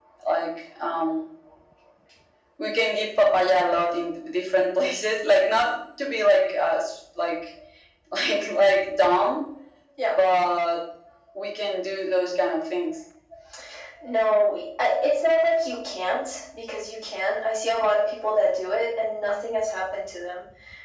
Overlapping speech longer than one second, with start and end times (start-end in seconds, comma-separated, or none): none